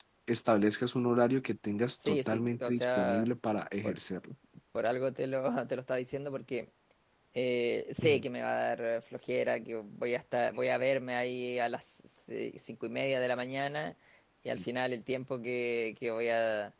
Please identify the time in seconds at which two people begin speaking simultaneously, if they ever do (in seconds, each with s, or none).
2.0 s